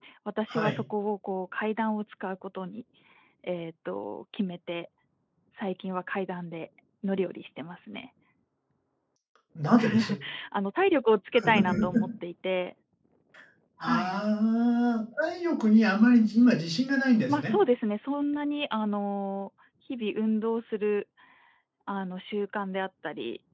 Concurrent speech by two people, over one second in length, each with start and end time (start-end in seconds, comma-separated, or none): none